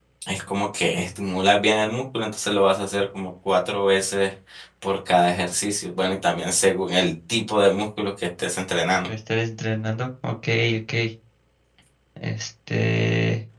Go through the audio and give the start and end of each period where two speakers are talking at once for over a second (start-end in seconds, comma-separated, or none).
none